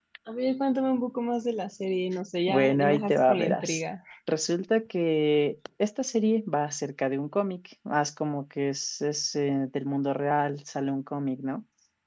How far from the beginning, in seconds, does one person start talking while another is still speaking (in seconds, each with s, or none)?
2.5 s